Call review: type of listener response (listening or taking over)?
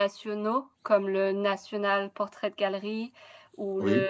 listening